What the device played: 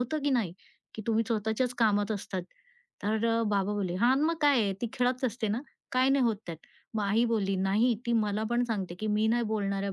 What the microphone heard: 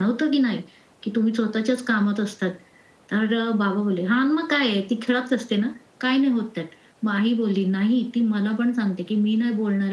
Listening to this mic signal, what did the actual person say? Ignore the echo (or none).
none